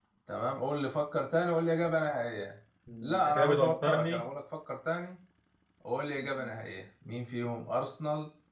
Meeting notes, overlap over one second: present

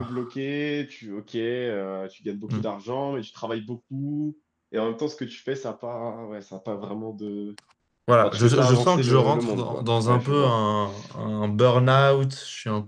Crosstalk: present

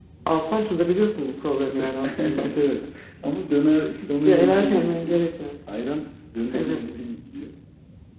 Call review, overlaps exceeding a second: present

